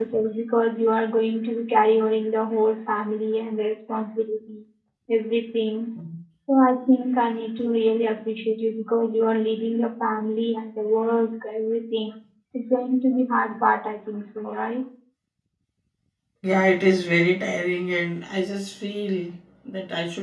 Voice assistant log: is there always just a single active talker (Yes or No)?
Yes